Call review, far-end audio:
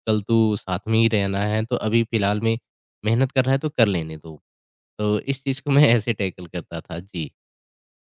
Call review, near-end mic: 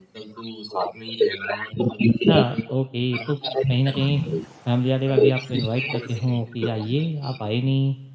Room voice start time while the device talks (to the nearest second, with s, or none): 2 s